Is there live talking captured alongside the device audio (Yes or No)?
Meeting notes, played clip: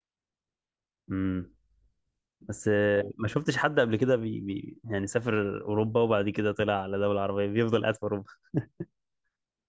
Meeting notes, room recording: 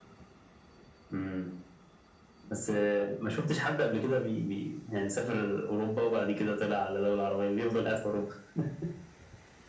No